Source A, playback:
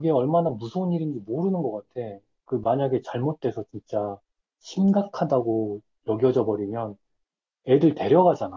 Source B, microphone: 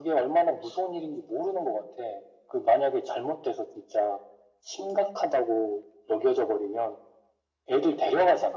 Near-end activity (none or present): none